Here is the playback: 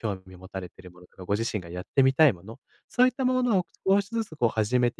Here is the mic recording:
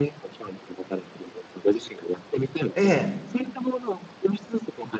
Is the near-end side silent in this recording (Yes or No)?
No